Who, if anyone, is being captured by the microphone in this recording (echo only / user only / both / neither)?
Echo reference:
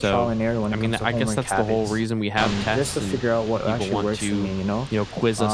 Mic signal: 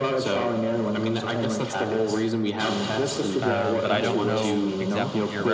both